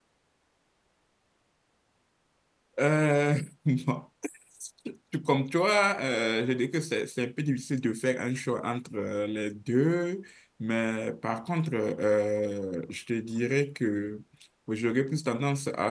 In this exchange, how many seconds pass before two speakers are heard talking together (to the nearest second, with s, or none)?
none